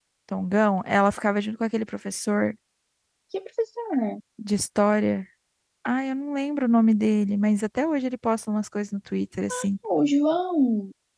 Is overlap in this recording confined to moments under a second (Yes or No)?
Yes